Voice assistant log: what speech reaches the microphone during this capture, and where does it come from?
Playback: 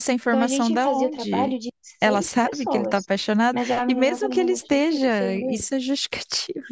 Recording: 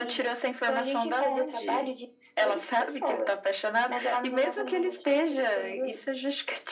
echo only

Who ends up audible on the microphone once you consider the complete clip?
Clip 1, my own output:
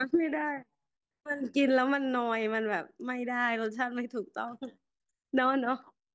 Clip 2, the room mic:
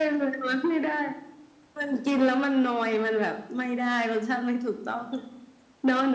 echo only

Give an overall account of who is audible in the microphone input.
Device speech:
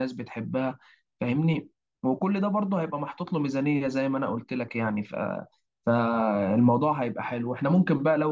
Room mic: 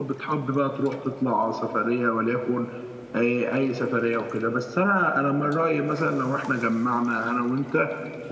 user only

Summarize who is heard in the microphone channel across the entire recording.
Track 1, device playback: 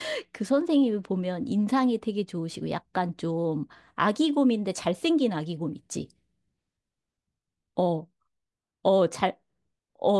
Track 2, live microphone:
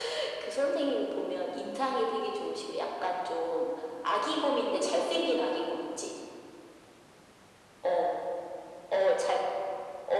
echo only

